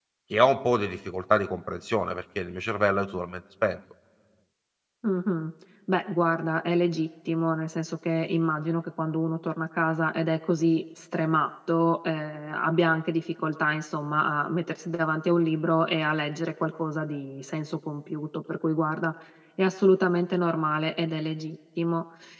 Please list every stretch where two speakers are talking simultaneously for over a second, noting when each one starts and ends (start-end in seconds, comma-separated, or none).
none